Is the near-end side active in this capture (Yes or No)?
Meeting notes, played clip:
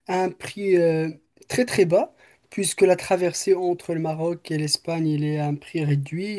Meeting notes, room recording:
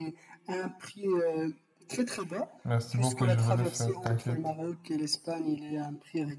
Yes